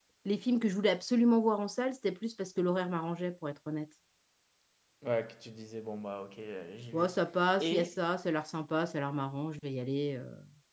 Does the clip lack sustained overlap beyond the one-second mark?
Yes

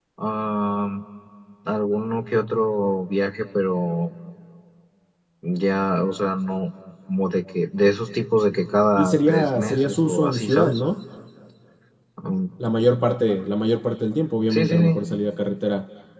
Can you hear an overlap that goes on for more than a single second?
Yes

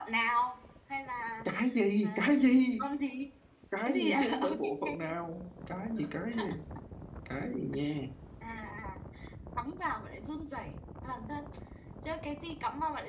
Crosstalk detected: Yes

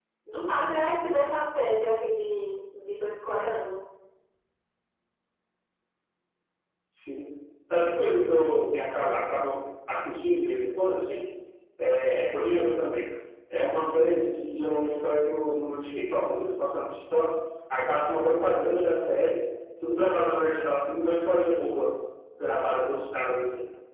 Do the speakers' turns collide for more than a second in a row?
No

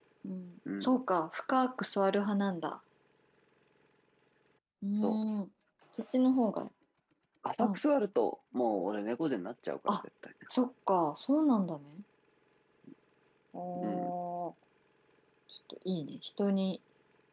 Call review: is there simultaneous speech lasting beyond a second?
No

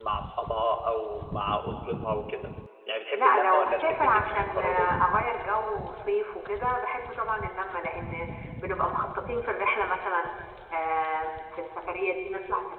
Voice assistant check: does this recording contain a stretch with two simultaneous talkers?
Yes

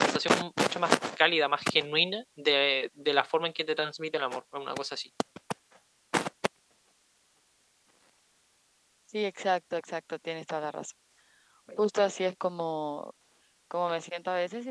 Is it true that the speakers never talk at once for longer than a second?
Yes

